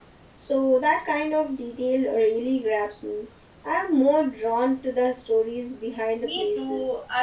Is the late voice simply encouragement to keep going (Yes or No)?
No